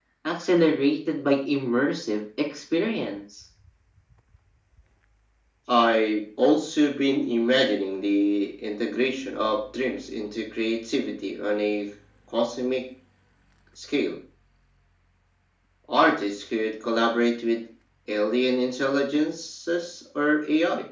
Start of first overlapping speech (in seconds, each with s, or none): none